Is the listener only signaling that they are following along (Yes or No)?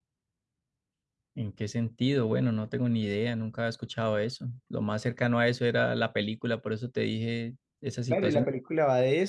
No